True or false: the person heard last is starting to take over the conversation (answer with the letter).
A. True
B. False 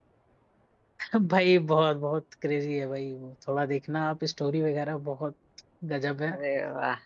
B